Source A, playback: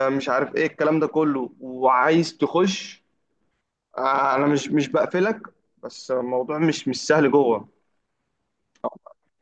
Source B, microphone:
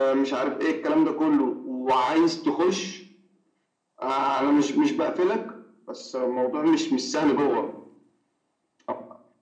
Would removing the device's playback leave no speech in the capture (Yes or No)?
Yes